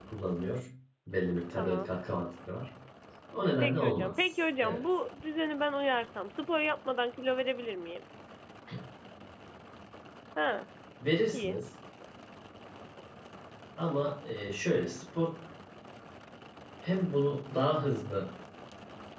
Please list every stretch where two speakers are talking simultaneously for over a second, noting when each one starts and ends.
3.6-4.8

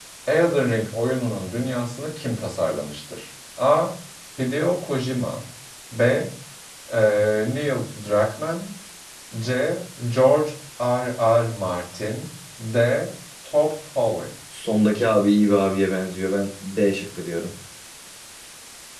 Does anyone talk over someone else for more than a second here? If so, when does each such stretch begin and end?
none

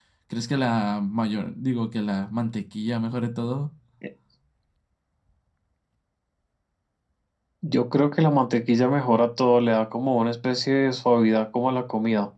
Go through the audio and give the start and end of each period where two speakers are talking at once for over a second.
none

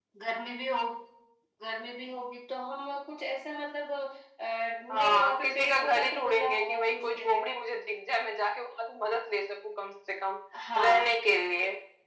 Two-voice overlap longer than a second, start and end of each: 4.9-7.4

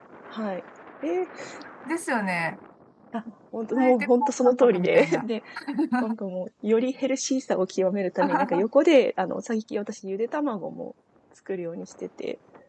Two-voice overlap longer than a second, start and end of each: 3.7-5.2

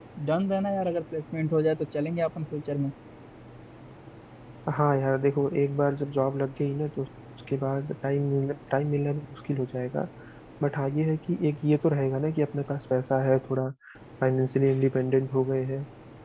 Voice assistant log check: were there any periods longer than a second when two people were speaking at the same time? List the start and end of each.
none

